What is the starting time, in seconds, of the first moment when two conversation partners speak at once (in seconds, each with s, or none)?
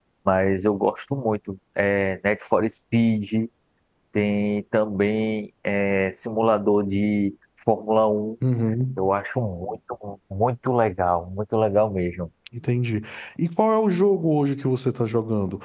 none